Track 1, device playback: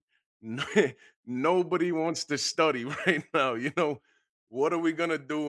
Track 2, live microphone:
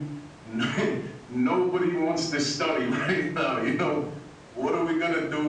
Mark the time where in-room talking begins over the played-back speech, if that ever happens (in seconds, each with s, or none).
none